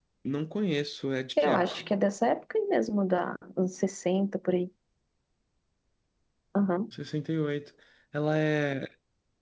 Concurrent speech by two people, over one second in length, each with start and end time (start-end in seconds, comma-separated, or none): none